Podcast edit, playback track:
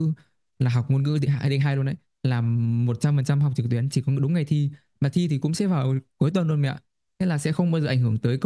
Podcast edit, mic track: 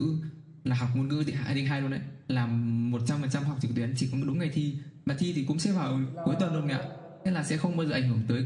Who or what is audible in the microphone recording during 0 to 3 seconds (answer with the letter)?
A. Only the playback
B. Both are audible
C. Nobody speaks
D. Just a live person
A